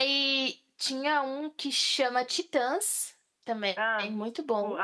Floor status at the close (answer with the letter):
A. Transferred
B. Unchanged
A